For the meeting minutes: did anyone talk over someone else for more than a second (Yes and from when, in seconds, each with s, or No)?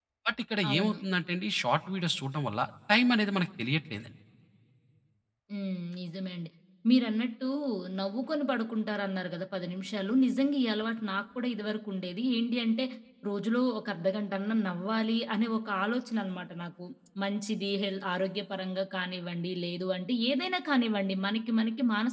No